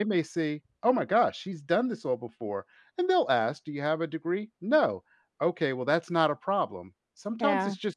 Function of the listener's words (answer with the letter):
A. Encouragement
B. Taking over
A